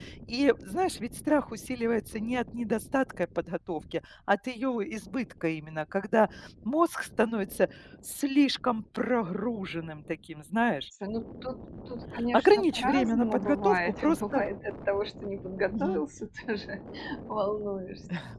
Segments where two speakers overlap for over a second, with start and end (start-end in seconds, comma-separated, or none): 12.3-14.4